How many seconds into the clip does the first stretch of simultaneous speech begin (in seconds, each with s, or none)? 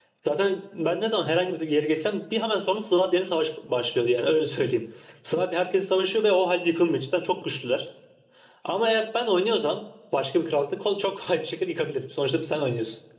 none